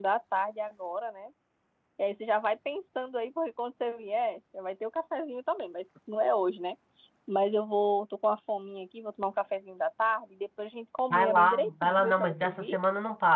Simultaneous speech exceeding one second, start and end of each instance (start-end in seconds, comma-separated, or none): 11.1-12.8